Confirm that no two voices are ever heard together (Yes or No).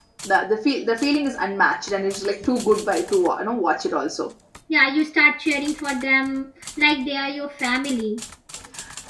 Yes